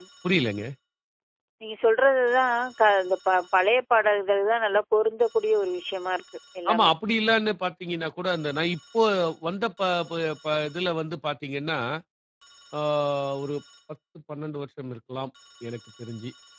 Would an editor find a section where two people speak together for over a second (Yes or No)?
No